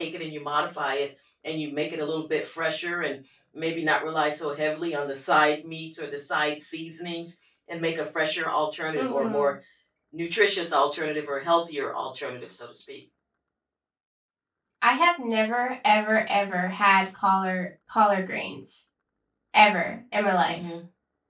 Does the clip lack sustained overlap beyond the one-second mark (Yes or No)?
Yes